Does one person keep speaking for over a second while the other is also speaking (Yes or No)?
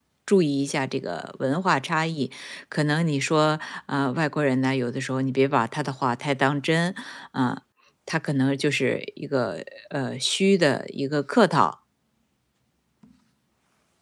No